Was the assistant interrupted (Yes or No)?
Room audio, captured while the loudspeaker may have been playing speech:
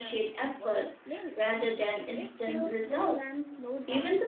Yes